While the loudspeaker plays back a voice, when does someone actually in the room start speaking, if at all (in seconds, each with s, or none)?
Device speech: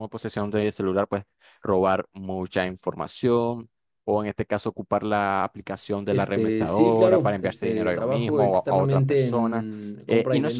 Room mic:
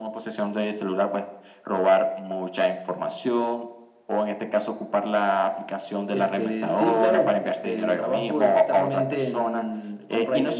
none